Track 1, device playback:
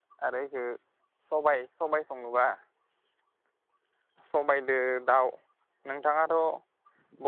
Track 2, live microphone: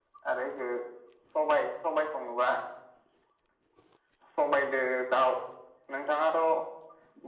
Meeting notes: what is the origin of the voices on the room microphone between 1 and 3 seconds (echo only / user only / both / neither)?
echo only